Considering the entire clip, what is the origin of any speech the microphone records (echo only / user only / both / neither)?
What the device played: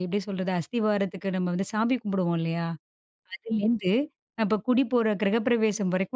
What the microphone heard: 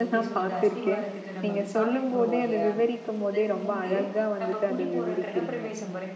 both